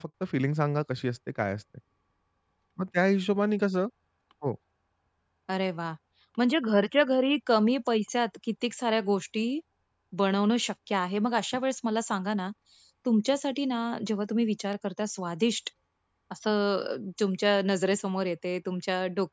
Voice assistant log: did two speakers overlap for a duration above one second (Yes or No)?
No